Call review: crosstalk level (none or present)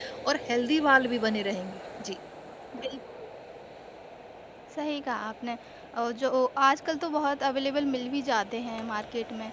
none